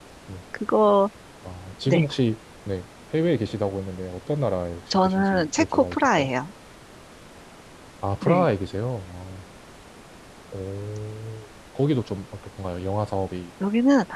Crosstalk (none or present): present